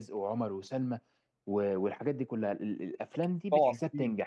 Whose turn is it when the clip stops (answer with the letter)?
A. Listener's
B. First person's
B